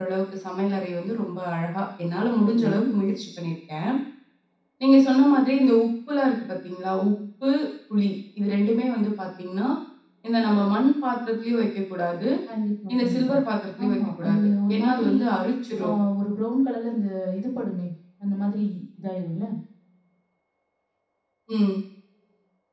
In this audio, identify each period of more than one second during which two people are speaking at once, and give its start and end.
13.8-15.1

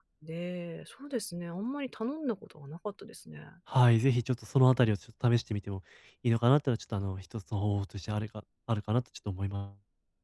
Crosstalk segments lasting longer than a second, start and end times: none

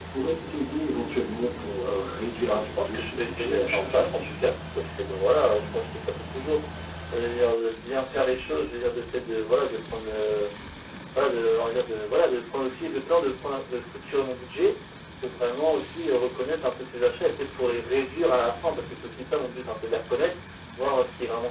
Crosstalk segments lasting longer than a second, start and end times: 2.5-4.3

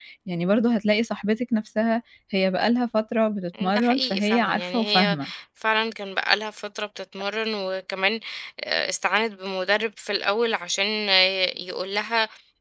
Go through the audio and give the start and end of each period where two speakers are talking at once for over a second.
3.6-5.2

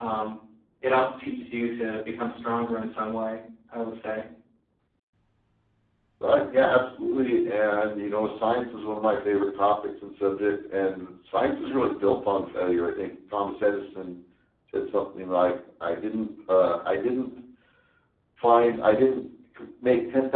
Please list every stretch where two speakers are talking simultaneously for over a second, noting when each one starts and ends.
none

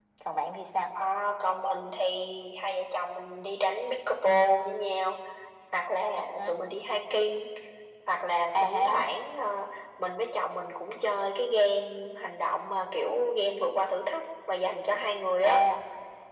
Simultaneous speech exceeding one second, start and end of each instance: none

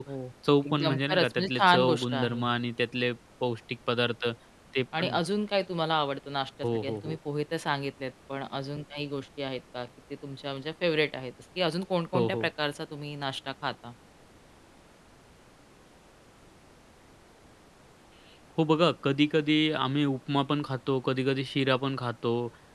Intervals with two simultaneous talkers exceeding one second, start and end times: 0.7-2.6

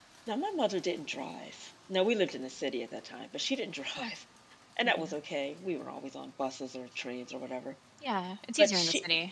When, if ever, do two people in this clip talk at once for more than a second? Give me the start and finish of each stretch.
none

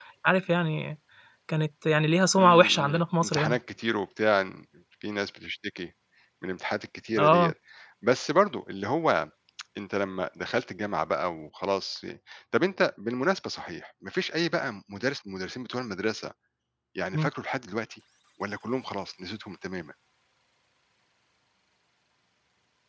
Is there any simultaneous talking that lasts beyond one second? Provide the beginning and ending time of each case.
2.4-3.6

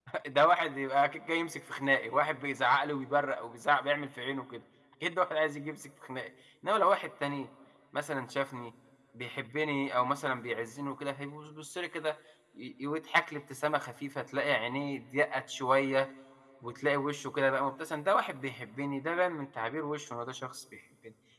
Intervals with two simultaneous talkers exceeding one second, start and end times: none

